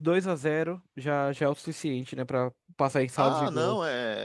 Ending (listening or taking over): taking over